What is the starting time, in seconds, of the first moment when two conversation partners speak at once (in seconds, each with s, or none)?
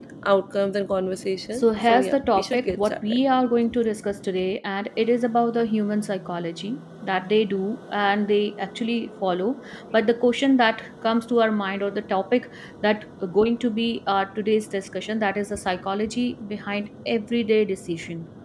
1.5 s